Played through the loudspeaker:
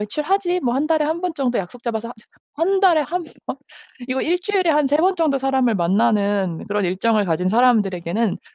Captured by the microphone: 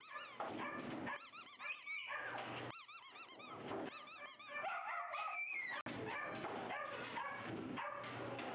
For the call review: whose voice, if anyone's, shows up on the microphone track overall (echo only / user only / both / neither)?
neither